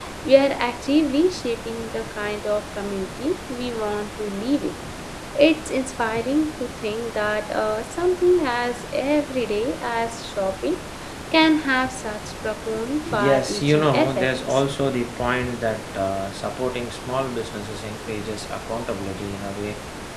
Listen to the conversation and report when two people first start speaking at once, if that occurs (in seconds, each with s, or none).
13.1 s